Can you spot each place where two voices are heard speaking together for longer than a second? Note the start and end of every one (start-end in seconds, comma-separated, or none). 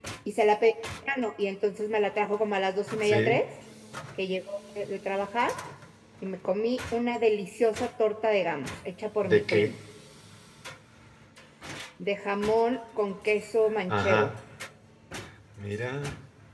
none